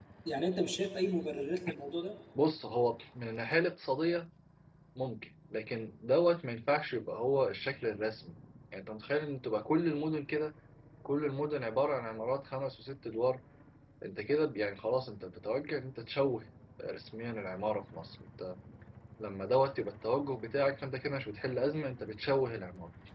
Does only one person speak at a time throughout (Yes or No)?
Yes